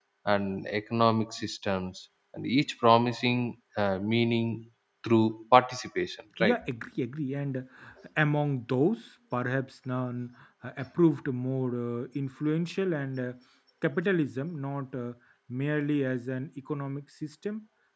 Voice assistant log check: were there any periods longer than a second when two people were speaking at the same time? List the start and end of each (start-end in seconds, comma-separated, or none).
none